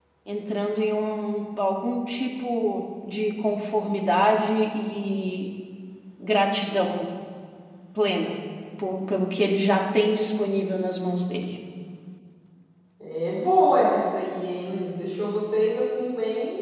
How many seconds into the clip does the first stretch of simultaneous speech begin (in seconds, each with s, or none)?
none